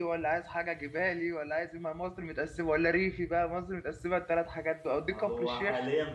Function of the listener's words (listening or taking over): taking over